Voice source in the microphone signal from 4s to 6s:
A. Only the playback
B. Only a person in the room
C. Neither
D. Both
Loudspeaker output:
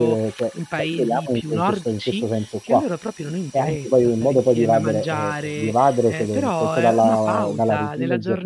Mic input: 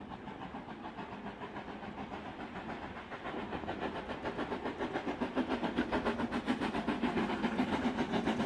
C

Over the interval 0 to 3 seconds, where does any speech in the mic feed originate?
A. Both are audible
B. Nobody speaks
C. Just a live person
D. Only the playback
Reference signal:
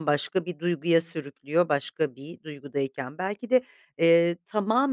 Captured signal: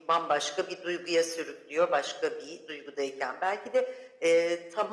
D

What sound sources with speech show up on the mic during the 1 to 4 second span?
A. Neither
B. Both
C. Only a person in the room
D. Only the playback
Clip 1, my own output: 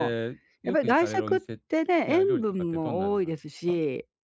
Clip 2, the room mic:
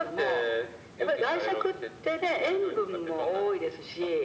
D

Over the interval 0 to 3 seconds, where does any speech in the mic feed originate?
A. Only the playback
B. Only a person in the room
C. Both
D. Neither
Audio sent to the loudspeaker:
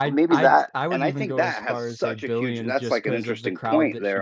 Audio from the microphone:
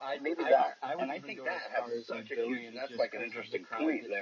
A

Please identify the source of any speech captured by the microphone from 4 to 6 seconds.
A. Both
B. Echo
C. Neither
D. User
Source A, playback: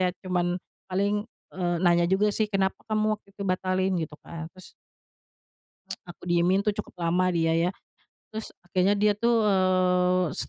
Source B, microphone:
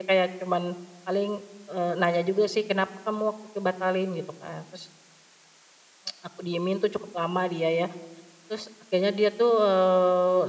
B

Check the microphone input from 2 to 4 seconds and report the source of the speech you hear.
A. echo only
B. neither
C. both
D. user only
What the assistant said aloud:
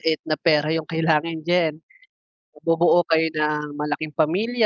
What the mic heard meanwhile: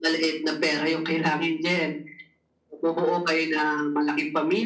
A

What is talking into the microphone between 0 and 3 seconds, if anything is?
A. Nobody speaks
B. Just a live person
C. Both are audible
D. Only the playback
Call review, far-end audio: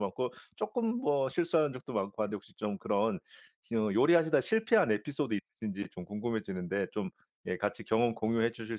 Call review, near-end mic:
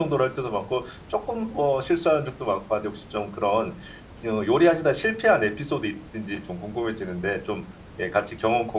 D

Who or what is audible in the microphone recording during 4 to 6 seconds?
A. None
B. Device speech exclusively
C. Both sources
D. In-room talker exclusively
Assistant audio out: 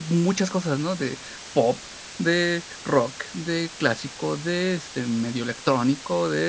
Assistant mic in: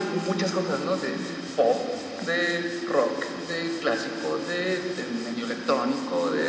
B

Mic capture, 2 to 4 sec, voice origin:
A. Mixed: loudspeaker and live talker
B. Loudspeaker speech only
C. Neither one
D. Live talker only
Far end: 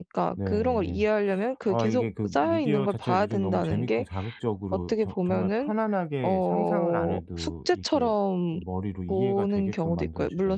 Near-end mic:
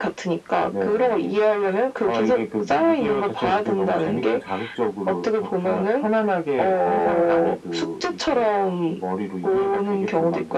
B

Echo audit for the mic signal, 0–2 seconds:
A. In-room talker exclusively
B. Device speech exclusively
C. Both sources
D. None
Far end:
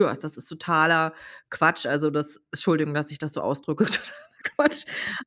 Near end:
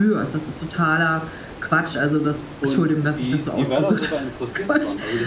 B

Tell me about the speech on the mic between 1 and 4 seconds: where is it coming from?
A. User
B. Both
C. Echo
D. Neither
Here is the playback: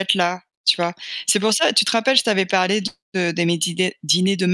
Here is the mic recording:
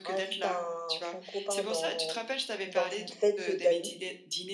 B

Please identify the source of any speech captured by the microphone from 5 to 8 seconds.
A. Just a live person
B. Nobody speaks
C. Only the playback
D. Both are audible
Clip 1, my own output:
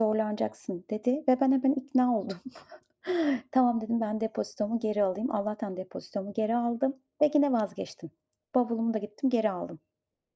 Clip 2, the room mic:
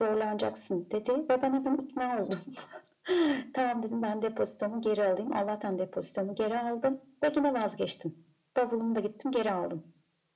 C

